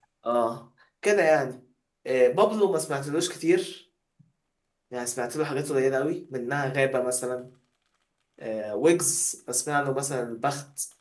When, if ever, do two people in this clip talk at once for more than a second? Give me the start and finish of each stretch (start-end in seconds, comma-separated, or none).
none